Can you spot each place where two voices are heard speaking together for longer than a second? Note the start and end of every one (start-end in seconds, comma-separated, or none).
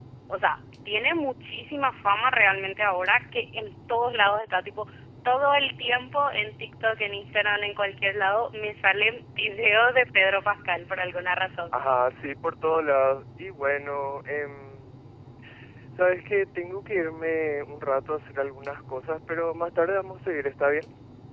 none